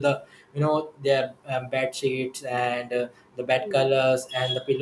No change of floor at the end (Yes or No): Yes